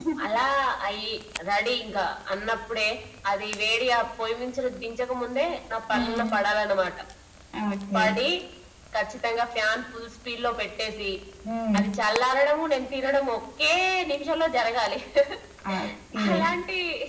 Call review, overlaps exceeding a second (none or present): none